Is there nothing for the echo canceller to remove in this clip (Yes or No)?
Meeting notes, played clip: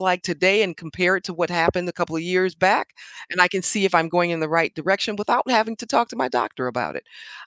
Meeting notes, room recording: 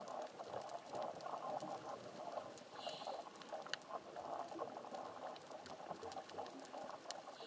Yes